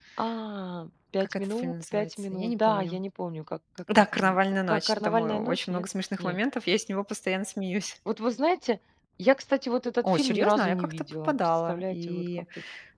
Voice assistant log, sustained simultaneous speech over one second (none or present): present